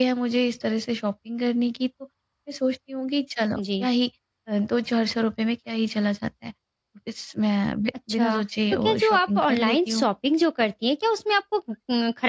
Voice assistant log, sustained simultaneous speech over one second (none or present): present